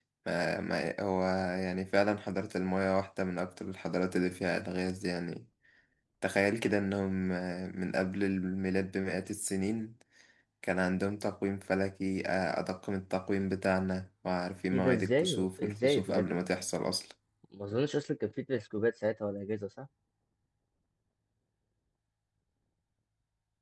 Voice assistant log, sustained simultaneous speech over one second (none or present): present